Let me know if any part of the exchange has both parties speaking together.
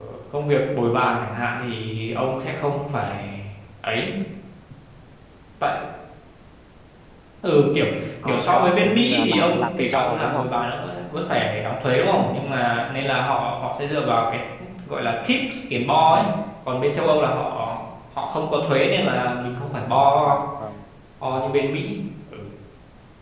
Yes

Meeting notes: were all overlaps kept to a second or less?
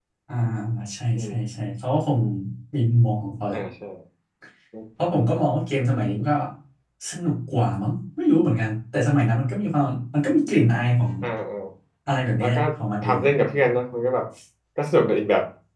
Yes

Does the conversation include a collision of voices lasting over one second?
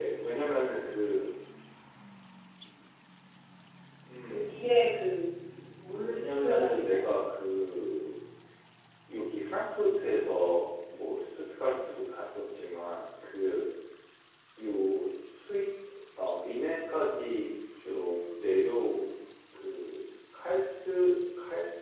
Yes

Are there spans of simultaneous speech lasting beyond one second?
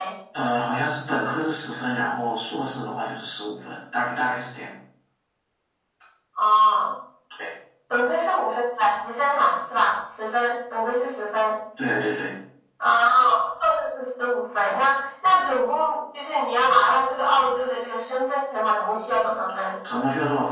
No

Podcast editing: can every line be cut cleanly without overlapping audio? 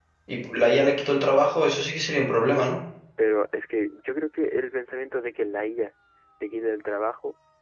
Yes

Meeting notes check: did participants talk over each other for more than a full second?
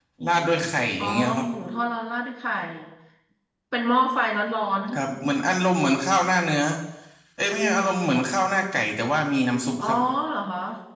No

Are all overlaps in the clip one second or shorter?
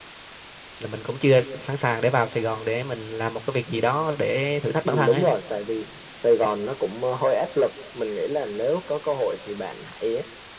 Yes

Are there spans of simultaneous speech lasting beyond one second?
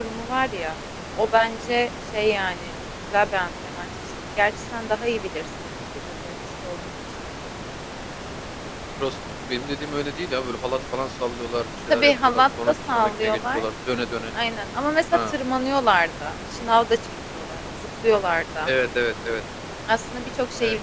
Yes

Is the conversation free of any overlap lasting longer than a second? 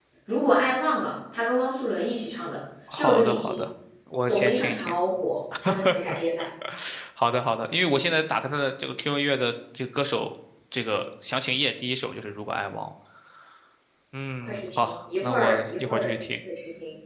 No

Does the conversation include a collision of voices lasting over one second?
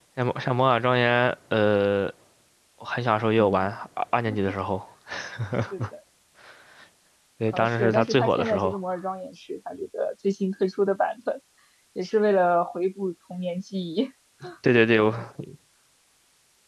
Yes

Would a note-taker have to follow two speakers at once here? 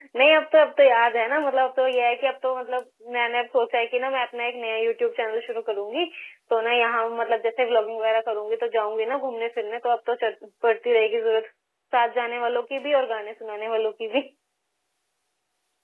No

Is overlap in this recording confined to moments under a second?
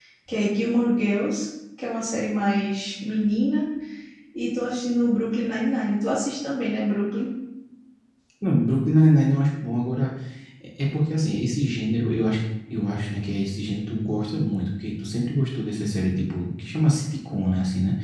Yes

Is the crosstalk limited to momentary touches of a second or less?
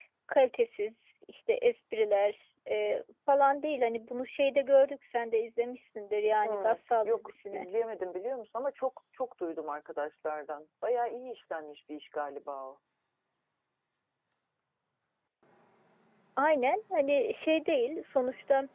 No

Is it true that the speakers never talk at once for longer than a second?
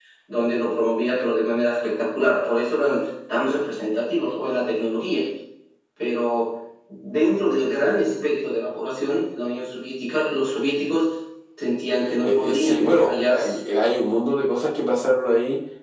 No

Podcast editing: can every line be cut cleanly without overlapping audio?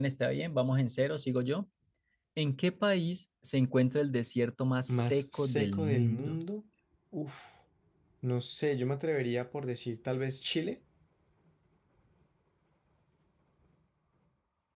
No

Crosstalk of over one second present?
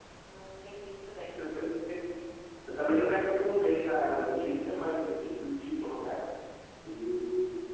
No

